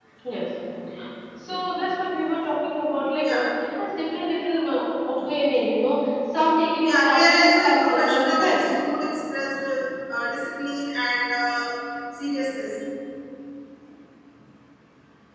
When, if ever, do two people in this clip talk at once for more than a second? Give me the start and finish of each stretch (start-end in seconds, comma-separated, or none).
6.8-8.6